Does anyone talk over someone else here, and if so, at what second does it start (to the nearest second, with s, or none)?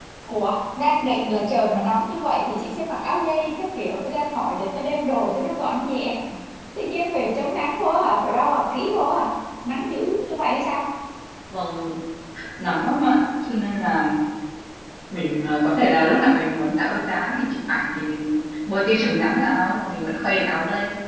none